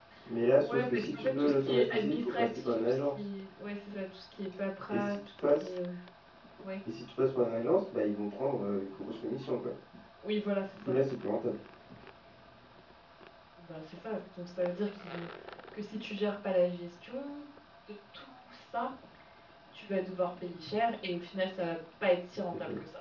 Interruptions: present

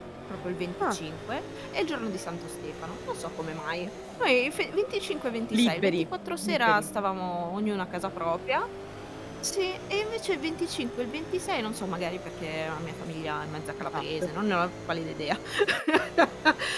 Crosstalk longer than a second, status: none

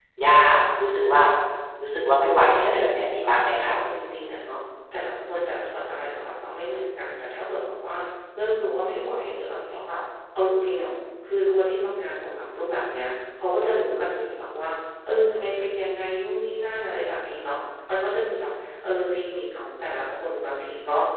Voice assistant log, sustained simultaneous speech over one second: present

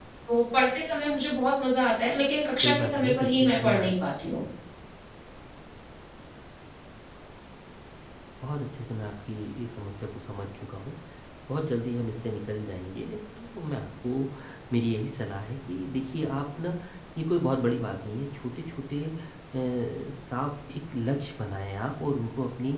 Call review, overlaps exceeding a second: present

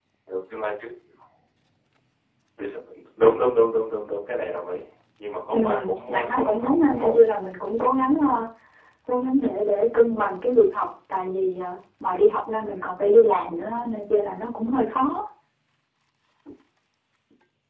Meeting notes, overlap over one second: present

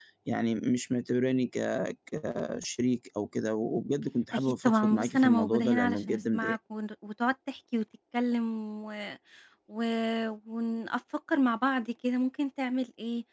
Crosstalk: present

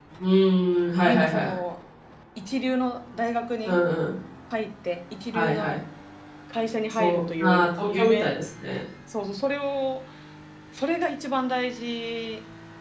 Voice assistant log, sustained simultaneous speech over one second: present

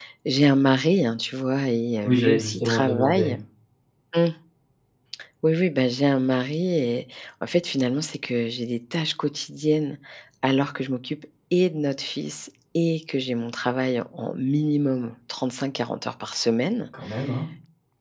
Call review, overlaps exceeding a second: present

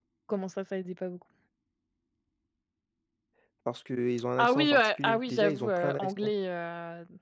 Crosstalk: present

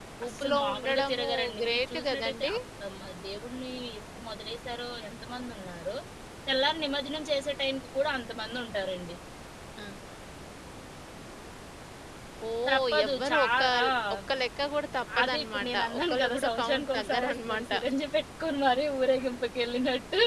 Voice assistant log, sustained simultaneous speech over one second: present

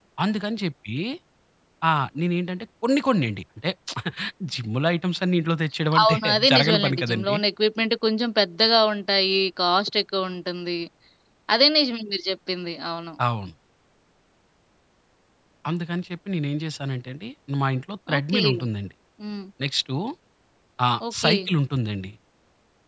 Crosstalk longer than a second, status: present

